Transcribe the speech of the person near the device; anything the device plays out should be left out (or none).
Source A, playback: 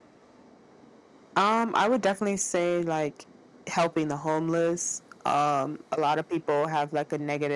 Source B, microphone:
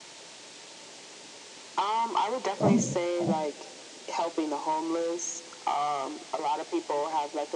Oh, that's awesome.